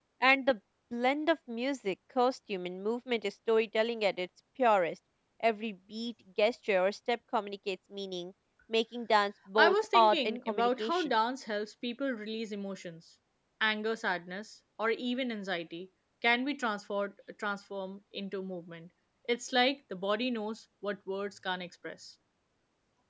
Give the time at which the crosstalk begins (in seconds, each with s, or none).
9.6 s